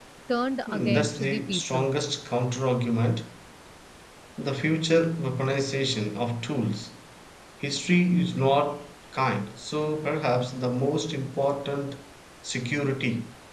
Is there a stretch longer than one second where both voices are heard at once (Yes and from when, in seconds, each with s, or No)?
Yes, from 0.7 s